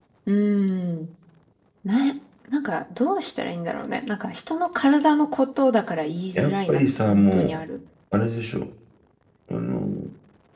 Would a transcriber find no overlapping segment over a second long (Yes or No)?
No